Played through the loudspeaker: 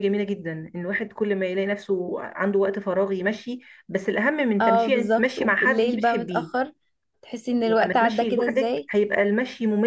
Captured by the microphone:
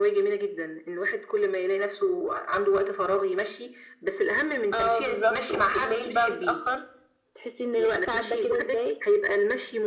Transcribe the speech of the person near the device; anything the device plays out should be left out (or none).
none